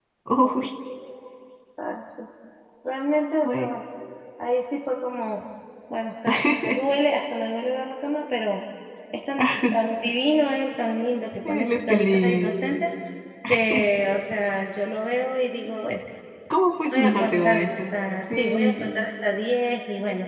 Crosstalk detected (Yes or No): Yes